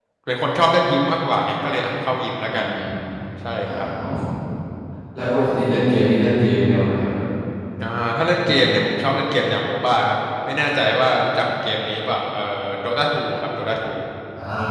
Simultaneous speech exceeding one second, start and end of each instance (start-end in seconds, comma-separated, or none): none